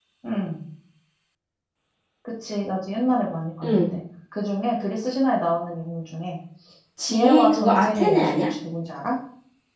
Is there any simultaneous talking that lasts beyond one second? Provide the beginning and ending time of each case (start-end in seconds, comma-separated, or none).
7.0-8.4